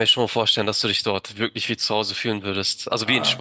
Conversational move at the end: taking over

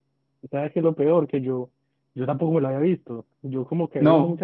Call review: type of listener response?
listening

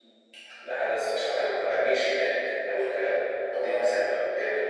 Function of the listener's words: listening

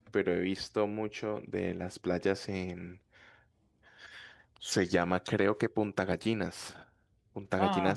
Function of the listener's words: taking over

